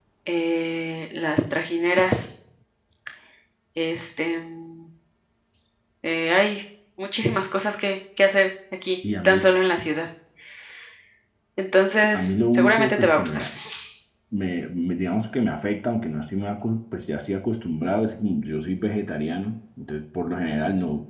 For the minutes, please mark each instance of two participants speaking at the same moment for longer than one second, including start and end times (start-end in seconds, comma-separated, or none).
12.1-13.4